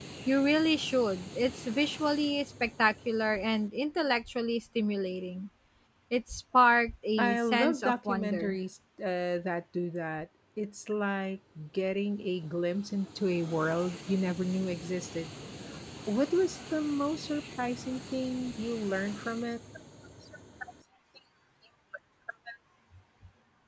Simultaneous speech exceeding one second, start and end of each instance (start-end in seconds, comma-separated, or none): 7.2-8.6